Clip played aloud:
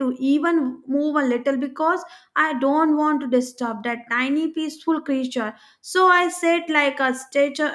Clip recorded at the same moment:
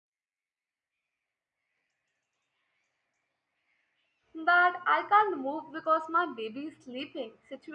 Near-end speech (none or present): present